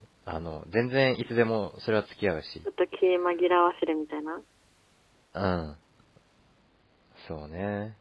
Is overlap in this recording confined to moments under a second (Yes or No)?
Yes